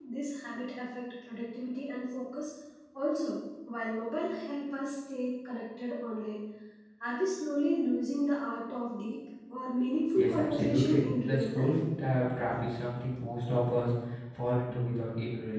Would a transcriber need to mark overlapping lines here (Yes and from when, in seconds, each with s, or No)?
Yes, from 10.2 s